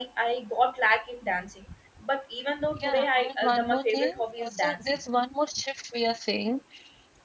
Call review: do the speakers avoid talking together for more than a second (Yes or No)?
No